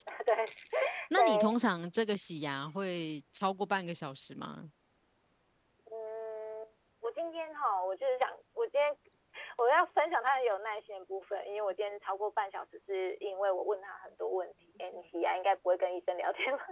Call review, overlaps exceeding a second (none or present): none